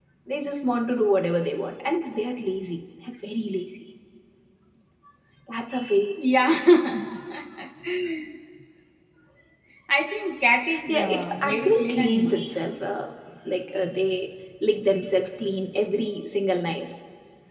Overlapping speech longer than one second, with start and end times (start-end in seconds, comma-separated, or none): 10.9-12.4